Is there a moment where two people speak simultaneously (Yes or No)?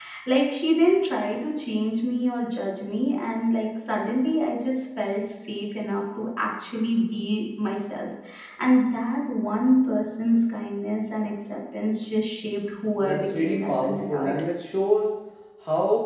Yes